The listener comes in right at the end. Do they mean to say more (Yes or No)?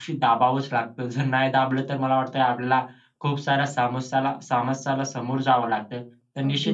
No